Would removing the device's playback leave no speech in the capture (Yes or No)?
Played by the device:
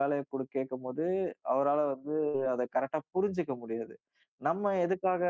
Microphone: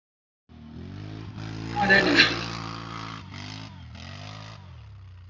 No